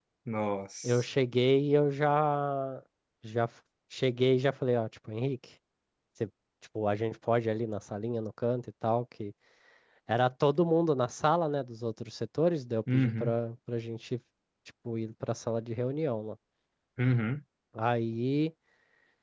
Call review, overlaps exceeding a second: none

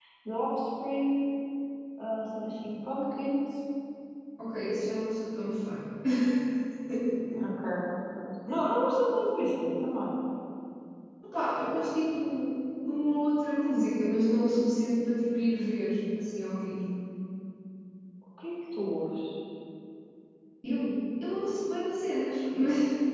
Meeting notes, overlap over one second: none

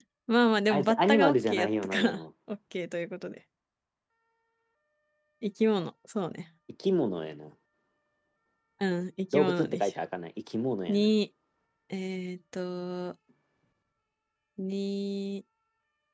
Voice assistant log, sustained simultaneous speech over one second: present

